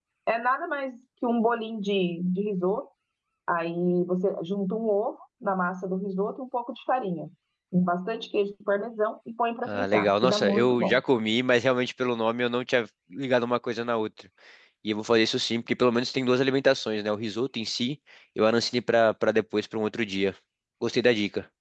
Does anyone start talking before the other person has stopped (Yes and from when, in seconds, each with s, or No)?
Yes, from 9.7 s